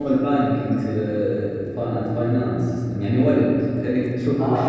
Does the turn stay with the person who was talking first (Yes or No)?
No